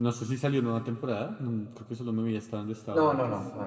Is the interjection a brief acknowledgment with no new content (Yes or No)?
No